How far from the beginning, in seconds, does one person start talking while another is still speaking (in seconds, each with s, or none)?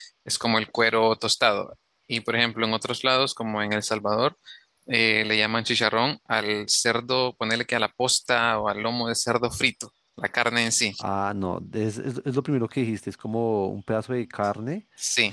none